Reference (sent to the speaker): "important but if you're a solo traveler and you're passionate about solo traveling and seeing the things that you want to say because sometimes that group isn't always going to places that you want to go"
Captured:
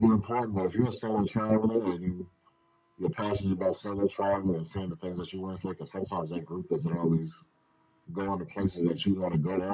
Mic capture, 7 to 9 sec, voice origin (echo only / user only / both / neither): echo only